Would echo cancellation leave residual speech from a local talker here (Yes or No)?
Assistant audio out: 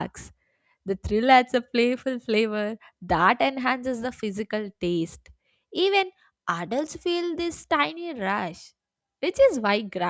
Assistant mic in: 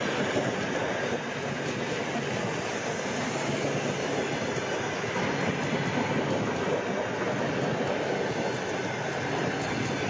No